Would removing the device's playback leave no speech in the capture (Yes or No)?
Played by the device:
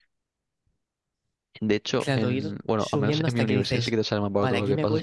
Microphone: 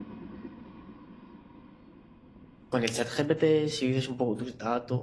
No